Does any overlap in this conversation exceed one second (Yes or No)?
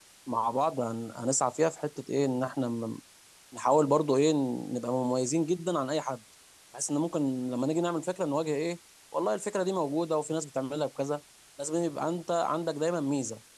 No